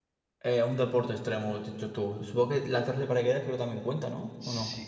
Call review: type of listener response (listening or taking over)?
taking over